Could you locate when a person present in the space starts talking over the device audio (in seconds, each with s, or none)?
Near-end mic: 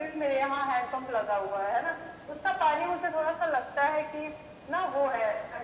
none